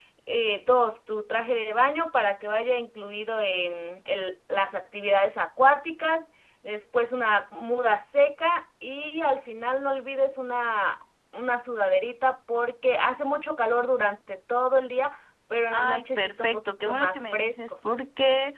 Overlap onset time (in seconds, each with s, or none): 15.7 s